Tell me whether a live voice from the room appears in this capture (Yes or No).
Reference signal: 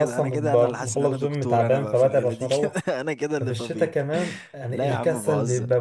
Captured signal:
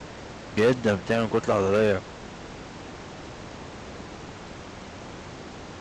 Yes